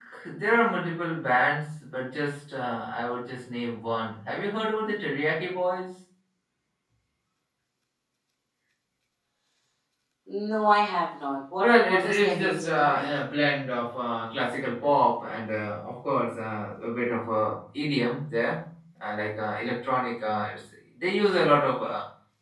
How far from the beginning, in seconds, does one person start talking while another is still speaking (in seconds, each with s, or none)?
11.6 s